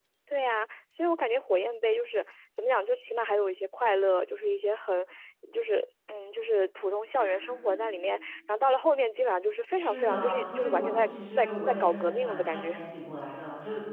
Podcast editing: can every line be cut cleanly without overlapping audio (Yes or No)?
No